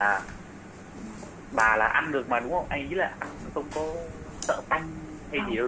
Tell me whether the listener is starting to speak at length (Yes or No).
Yes